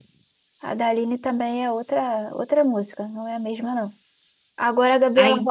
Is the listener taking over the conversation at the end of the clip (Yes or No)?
No